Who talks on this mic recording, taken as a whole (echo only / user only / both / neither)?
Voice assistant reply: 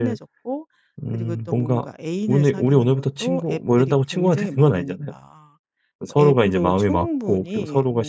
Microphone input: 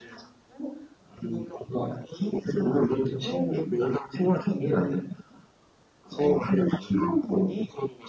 echo only